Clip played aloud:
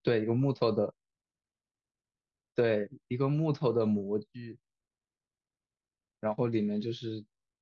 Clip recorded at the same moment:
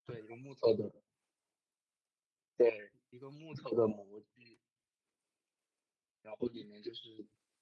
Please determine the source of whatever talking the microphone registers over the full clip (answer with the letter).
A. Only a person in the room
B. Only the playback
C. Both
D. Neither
B